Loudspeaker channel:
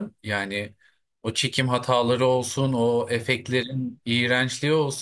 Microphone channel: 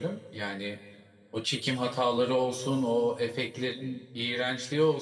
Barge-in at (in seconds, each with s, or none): none